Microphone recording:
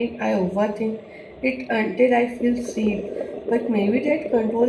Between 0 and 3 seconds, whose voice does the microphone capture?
user only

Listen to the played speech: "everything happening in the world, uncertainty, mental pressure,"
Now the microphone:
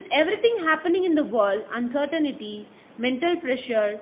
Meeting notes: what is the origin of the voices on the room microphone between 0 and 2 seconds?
echo only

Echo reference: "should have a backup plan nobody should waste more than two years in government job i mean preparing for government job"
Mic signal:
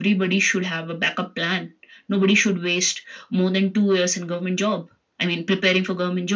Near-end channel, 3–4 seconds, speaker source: echo only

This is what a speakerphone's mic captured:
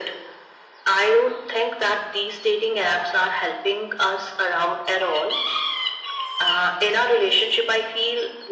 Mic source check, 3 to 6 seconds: echo only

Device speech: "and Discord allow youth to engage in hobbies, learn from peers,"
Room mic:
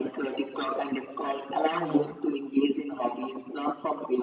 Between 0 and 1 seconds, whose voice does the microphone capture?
echo only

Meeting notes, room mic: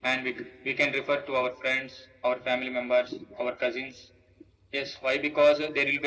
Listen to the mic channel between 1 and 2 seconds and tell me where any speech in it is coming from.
echo only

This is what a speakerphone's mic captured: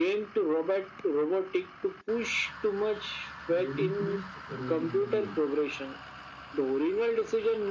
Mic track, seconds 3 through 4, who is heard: both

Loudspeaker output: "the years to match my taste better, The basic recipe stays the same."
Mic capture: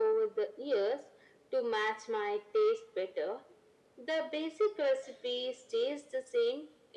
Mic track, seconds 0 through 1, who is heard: echo only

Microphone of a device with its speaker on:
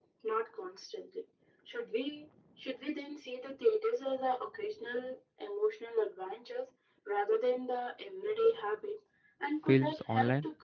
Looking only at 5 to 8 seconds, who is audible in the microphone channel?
echo only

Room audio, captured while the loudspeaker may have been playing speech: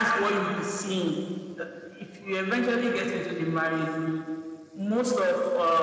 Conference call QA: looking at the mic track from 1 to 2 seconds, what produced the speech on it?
echo only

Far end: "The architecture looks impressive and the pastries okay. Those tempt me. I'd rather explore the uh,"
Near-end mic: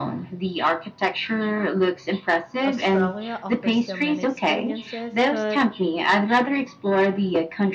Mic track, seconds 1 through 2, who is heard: echo only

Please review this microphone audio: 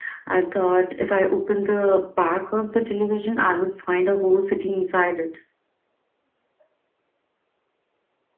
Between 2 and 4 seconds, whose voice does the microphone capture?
echo only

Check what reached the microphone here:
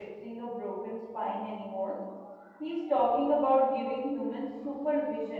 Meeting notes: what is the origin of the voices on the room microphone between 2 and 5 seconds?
user only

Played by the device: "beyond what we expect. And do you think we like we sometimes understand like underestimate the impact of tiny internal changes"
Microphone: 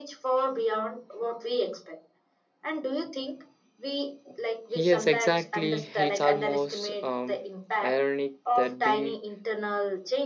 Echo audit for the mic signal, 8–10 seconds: both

